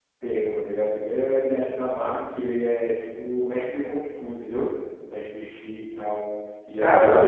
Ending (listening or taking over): taking over